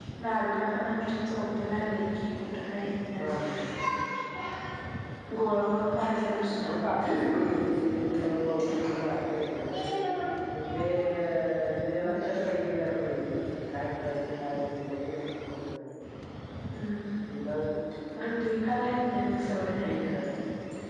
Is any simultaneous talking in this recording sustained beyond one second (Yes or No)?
No